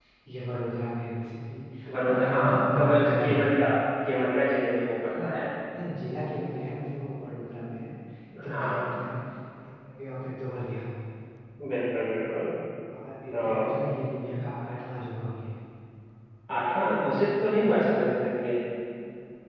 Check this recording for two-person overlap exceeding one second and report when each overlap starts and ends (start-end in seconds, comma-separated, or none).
2.1-3.6